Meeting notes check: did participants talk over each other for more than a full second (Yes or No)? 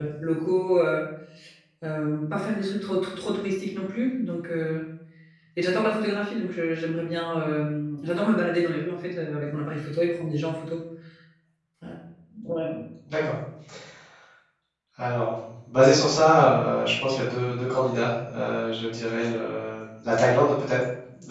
No